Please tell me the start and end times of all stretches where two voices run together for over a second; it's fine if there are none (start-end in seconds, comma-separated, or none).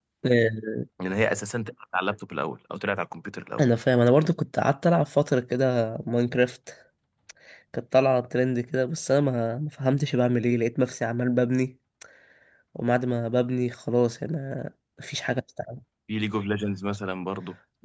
none